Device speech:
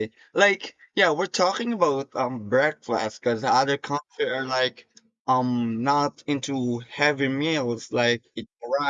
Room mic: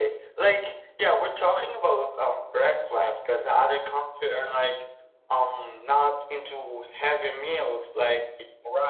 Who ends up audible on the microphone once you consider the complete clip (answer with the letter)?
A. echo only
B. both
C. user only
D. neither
A